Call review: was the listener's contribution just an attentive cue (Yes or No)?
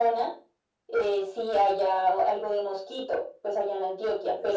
Yes